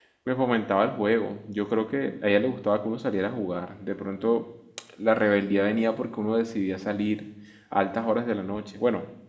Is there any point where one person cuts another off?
No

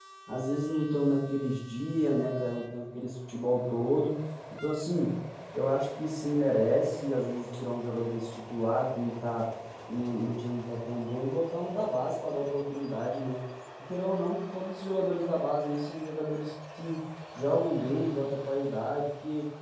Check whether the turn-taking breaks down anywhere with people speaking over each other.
No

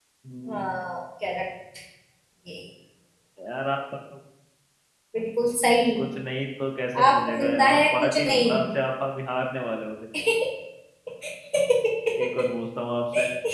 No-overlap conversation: No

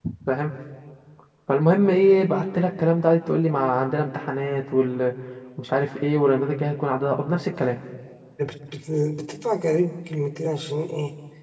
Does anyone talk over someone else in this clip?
No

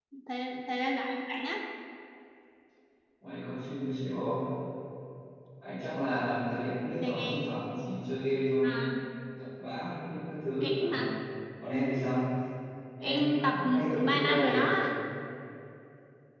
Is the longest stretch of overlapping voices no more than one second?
No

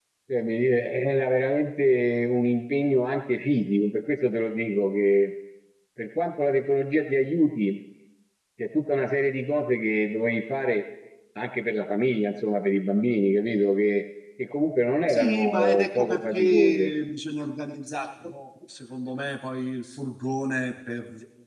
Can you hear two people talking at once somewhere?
Yes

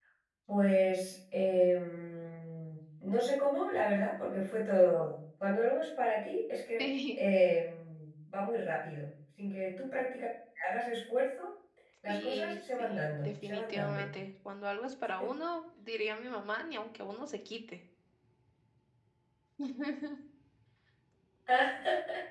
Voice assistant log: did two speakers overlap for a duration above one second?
Yes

